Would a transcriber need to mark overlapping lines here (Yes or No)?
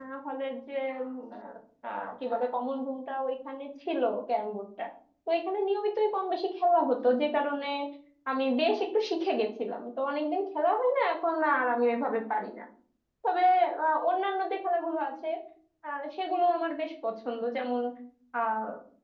No